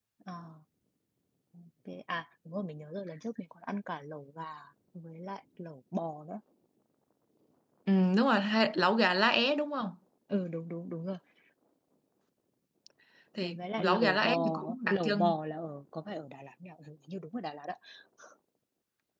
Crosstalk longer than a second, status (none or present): present